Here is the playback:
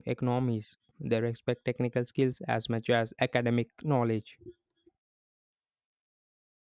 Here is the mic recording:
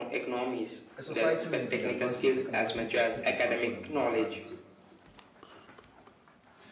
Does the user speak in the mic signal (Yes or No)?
Yes